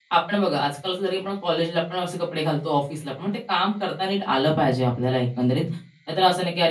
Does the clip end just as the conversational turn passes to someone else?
No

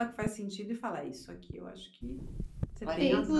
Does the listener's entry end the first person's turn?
Yes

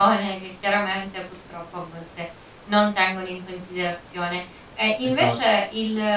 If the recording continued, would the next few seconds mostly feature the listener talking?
No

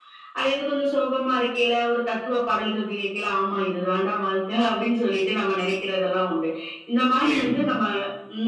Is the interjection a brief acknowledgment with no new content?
Yes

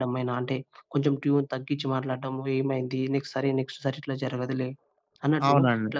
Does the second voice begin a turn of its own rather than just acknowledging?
No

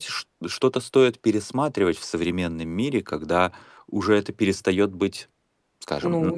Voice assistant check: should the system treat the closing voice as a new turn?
Yes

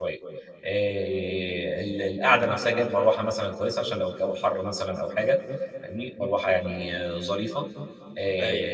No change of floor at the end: Yes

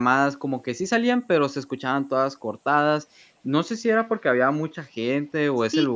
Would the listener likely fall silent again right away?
No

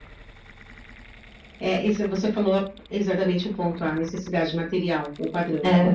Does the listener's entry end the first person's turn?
No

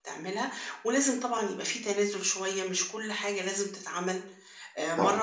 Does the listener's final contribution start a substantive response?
No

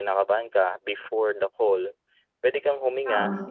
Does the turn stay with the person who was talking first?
Yes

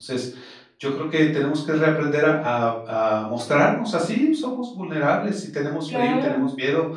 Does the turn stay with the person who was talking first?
Yes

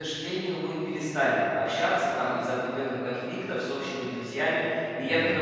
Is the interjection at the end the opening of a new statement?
No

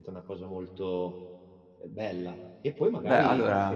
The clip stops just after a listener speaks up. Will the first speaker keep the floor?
Yes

